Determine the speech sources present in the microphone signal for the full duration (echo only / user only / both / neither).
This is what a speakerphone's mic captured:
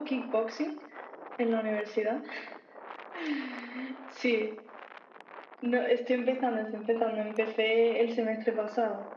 echo only